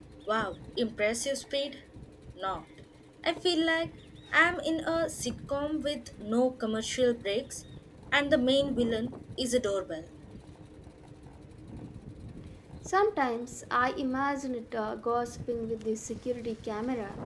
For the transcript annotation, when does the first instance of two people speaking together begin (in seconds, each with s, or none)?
none